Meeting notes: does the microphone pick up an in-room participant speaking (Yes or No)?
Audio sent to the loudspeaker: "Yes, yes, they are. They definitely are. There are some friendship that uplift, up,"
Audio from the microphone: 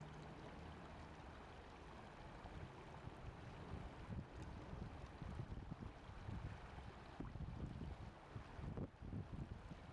No